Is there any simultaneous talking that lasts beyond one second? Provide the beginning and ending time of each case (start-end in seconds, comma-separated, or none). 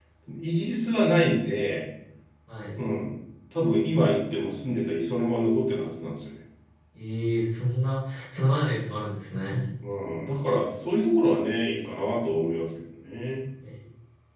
none